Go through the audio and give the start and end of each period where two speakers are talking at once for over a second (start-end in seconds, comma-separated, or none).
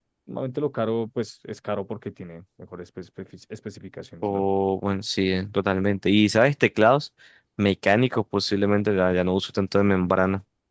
none